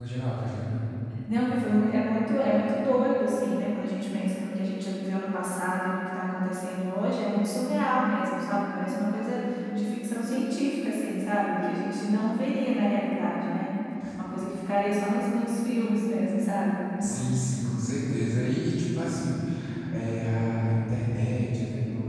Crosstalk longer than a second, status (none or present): none